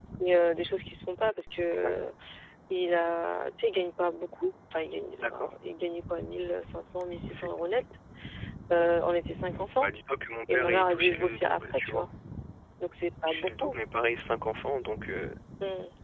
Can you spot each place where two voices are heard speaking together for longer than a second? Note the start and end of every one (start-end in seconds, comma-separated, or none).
10.5-12.1